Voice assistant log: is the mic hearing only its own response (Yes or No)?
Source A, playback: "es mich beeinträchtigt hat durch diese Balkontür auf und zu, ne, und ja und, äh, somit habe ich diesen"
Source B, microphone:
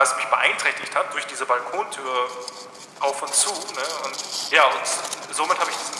Yes